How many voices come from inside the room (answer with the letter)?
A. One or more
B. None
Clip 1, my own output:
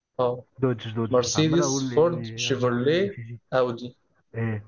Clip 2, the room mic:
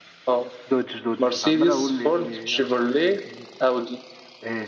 B